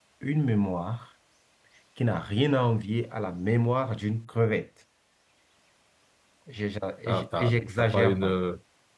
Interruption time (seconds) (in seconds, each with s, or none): 7.1 s